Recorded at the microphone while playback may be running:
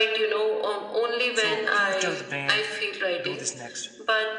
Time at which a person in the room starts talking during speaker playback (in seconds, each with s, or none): 1.3 s